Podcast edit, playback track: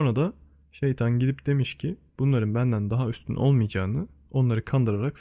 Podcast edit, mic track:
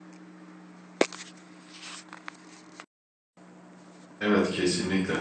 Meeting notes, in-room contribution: present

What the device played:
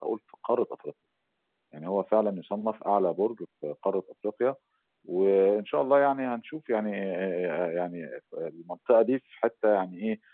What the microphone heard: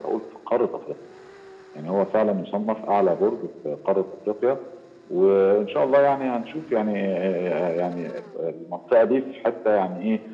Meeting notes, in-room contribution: none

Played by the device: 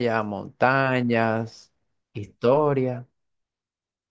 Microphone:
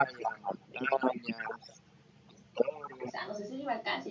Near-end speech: present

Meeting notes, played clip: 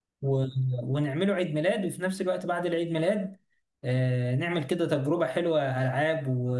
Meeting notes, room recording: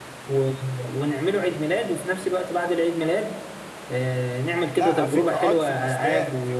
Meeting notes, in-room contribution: present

